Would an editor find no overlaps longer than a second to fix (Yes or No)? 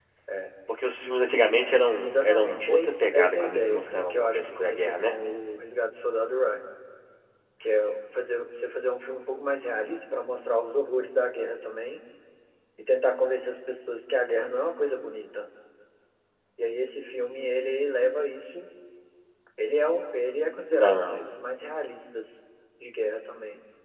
No